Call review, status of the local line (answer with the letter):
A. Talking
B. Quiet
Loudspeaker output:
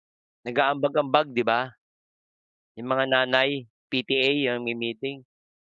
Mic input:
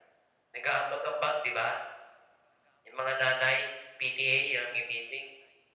B